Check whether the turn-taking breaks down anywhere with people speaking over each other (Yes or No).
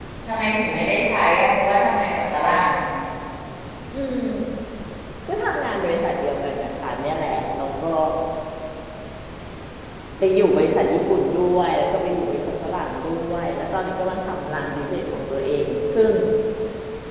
No